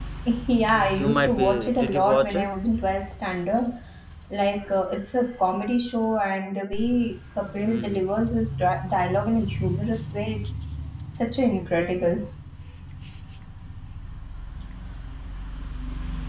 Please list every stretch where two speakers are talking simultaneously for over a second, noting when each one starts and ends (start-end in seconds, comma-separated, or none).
1.0-2.5